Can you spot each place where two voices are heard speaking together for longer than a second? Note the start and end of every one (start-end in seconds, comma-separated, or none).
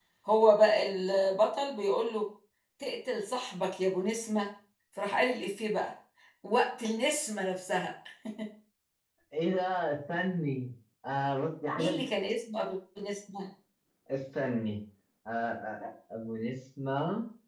none